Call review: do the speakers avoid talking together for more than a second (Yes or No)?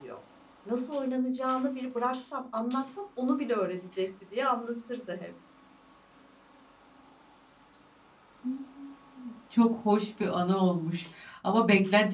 Yes